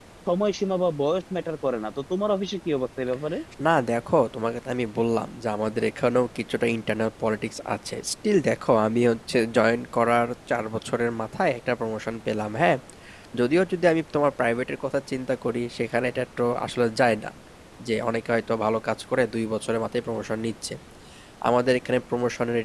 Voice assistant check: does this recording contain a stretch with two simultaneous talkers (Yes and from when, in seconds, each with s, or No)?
No